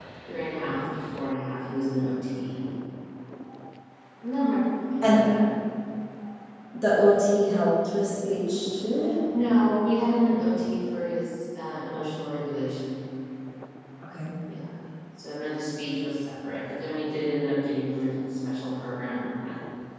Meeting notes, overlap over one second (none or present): none